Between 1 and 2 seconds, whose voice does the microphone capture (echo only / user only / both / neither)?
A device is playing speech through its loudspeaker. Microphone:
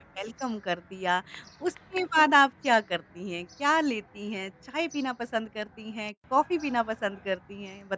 user only